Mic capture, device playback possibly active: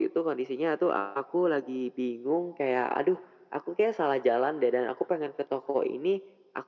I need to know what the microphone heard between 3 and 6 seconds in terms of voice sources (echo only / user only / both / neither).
echo only